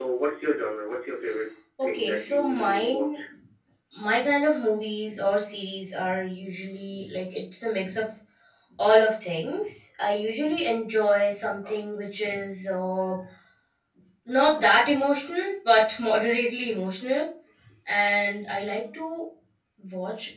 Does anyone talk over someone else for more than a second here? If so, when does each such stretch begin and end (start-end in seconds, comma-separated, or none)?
1.8-3.1